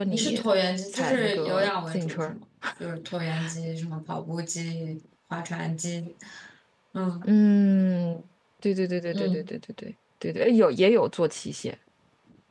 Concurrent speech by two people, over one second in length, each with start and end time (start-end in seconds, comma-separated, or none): 0.9-2.3